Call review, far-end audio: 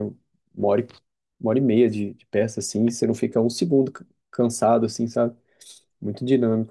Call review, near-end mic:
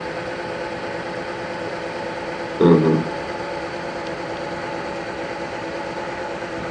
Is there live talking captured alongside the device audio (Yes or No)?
Yes